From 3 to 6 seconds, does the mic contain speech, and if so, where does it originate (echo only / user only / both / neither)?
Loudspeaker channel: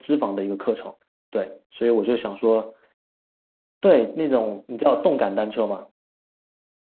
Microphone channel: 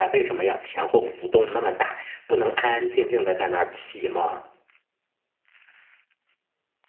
user only